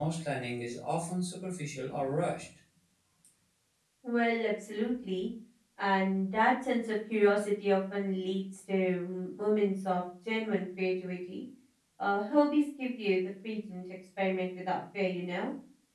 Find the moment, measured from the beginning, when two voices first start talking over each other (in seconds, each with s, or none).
none